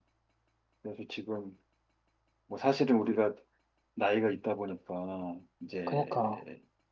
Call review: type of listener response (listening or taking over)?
listening